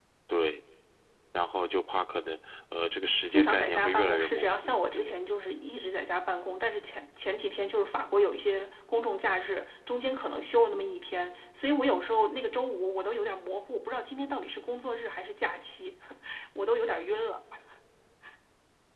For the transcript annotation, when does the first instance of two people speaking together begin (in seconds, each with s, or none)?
3.3 s